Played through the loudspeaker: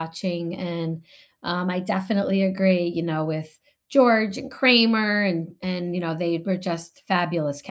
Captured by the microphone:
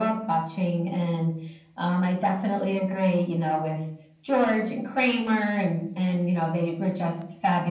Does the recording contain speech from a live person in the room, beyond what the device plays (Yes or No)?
No